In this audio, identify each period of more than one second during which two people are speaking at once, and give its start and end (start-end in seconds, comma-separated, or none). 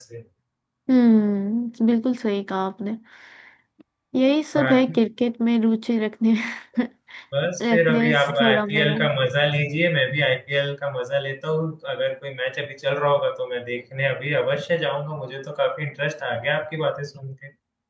7.6-8.9